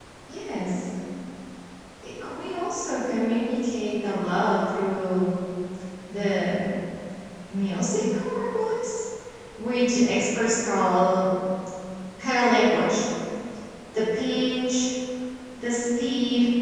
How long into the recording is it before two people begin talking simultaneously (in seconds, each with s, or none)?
none